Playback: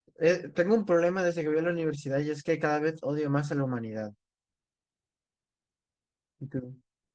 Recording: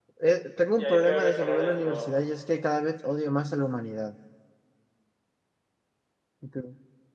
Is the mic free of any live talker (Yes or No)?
No